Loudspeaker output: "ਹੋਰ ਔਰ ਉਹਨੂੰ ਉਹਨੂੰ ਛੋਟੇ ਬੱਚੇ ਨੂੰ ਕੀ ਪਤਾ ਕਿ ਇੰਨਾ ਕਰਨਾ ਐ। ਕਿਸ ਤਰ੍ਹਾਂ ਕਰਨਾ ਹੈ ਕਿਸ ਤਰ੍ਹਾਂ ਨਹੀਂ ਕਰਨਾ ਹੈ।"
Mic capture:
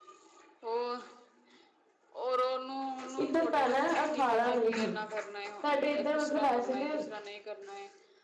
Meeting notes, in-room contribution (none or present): present